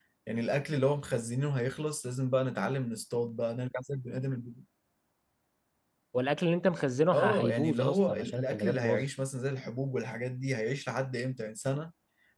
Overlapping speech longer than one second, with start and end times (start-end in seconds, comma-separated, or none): 7.1-9.1